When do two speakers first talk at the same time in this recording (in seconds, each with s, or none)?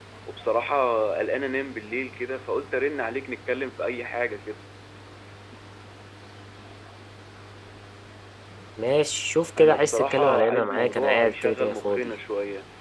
9.6 s